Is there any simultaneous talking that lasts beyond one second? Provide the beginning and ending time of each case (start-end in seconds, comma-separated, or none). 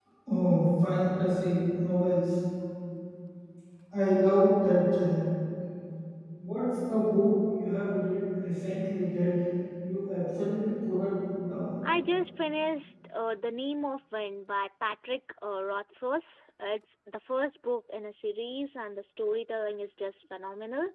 none